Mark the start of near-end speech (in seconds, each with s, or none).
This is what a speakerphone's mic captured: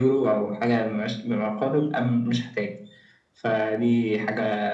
none